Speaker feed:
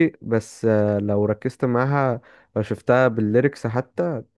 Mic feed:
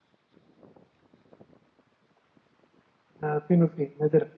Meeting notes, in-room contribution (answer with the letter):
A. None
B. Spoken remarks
B